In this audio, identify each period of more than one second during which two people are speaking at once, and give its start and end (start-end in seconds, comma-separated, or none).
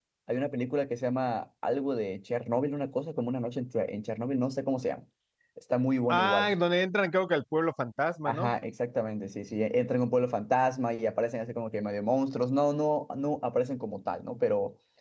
none